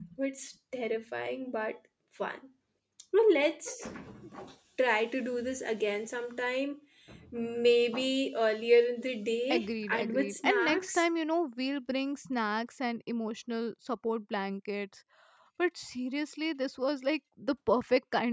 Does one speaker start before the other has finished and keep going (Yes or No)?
Yes